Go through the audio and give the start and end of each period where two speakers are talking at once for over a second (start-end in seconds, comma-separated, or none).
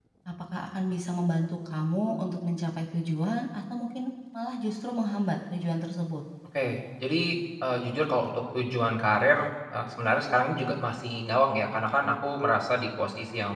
none